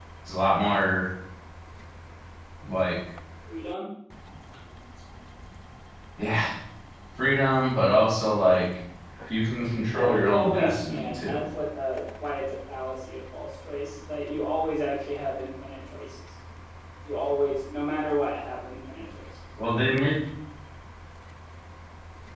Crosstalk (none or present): present